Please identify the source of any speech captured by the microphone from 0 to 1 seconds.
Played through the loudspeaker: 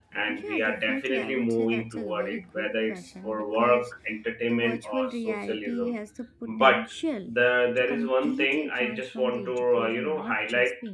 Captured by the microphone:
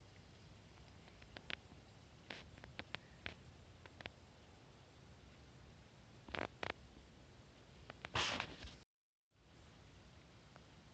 neither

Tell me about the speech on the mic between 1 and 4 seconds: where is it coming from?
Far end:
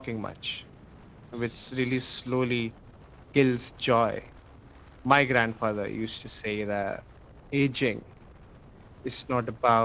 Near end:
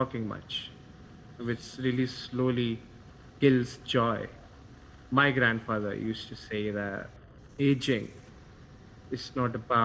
echo only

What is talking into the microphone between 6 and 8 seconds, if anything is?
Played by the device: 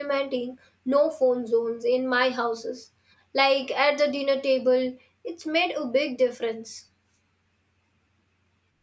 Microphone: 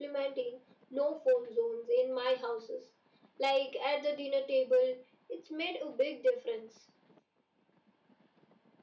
echo only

